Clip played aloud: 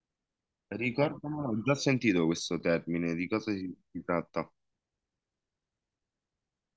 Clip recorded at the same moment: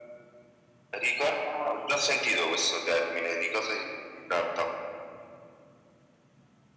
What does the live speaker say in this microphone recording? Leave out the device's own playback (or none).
none